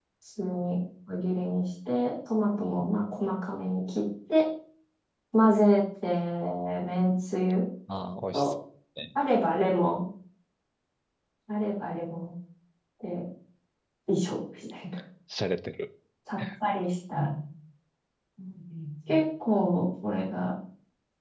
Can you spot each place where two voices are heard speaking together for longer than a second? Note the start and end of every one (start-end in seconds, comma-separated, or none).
none